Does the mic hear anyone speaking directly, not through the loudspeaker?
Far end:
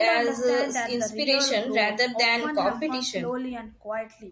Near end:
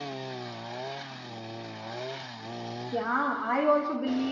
Yes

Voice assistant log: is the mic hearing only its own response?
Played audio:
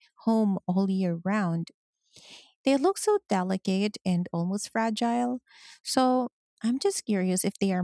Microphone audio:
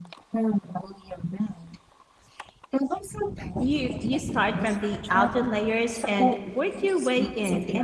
No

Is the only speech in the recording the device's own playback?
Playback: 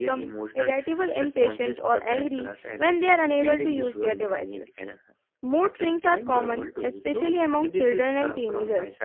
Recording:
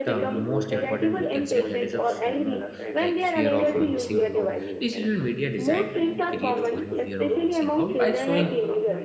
No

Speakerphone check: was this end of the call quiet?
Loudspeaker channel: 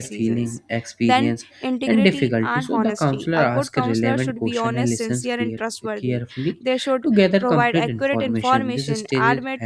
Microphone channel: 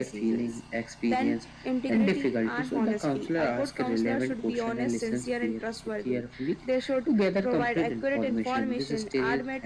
Yes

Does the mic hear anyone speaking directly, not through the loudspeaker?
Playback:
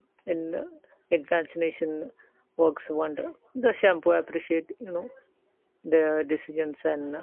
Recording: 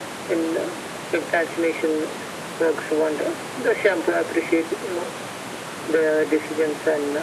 No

